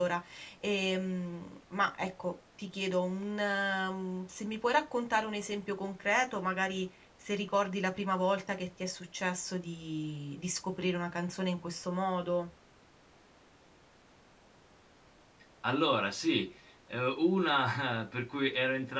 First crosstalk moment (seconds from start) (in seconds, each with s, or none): none